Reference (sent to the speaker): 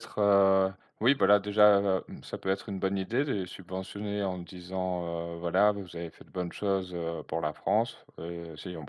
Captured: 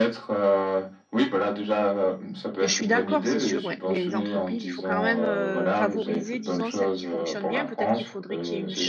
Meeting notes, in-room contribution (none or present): present